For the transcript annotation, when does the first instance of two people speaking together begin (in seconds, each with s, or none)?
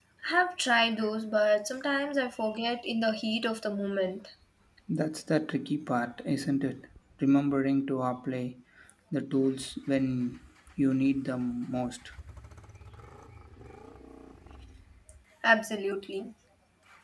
none